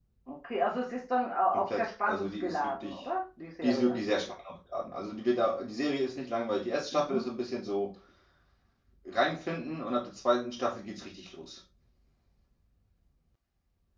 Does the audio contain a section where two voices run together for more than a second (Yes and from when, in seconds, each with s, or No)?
Yes, from 1.5 s